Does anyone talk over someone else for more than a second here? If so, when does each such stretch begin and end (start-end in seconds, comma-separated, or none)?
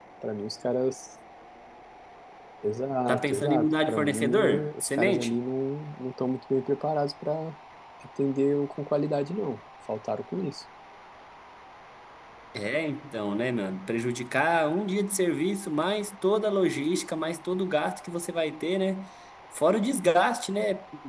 3.1-5.4